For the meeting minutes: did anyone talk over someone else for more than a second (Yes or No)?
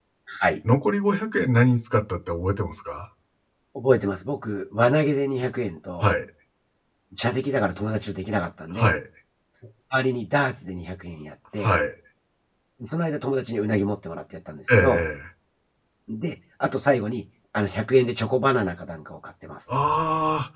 No